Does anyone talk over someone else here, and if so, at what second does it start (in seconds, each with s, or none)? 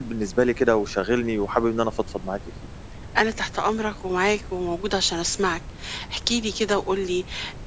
none